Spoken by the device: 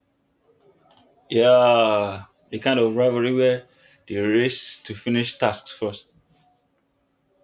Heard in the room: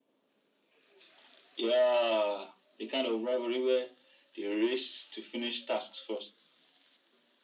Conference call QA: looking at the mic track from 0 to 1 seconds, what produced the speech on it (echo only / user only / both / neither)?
neither